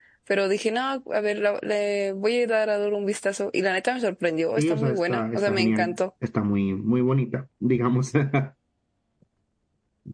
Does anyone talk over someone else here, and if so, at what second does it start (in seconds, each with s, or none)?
4.6 s